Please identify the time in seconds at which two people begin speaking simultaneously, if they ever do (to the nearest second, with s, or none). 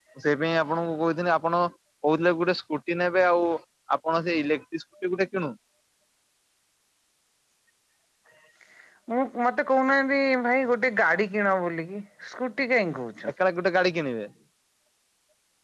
none